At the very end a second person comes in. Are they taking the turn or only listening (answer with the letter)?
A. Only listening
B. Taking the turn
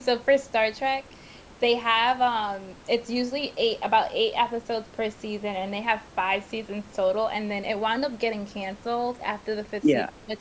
A